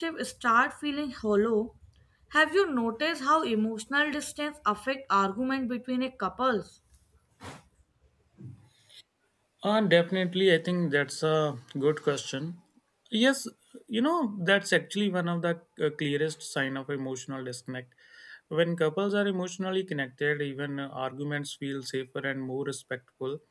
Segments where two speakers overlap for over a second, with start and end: none

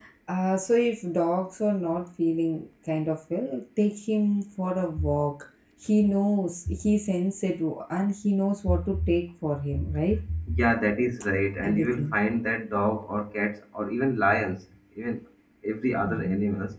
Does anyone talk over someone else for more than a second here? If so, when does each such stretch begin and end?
none

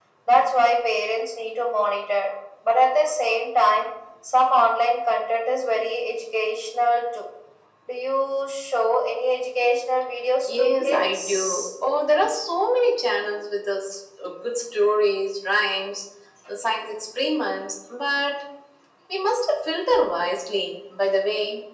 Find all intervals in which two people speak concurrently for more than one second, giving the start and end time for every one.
10.5-11.7

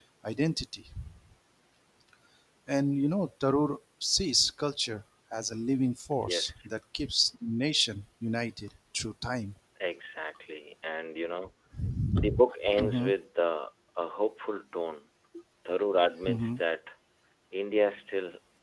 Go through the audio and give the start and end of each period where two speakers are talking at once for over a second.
none

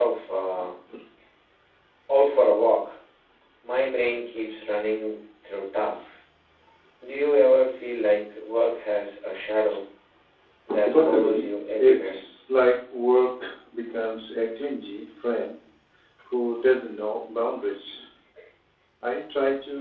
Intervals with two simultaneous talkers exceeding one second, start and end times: 10.9-12.2

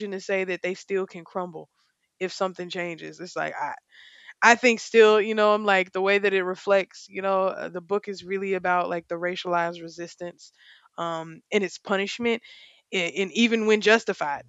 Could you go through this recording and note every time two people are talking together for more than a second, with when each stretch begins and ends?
none

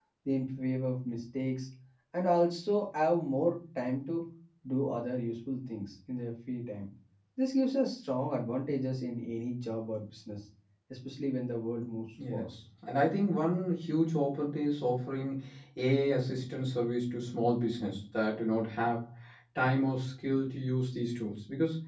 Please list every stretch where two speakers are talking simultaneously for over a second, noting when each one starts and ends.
none

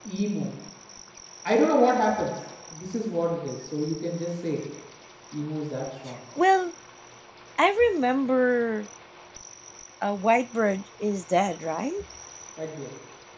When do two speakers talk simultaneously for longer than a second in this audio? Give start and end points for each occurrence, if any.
none

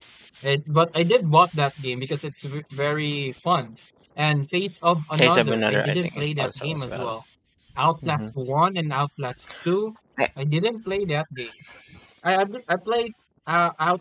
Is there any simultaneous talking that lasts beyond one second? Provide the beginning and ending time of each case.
5.2-7.1

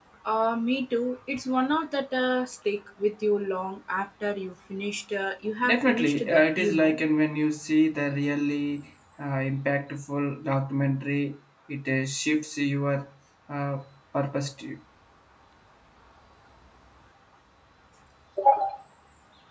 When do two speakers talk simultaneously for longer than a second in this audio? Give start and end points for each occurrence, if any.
5.6-7.0

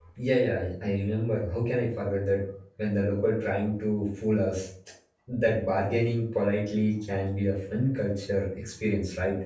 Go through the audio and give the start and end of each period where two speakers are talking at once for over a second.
none

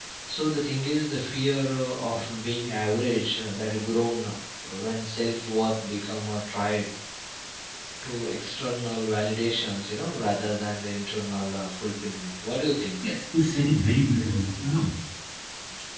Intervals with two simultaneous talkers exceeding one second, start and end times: none

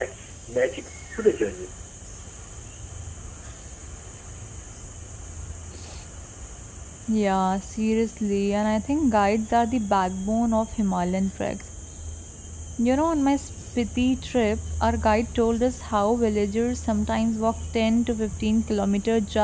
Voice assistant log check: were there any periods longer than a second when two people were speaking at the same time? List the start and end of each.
none

